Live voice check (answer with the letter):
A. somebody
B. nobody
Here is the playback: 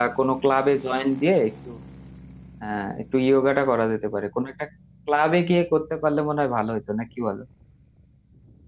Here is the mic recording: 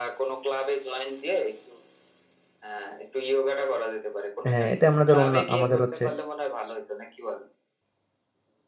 A